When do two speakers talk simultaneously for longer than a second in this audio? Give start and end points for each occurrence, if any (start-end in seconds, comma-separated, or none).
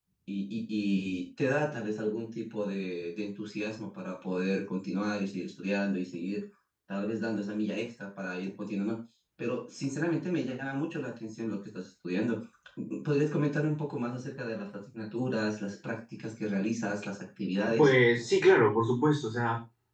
none